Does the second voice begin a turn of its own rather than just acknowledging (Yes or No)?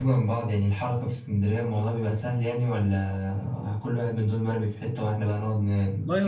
Yes